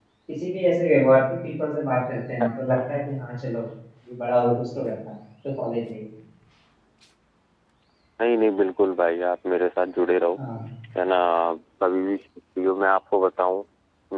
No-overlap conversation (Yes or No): Yes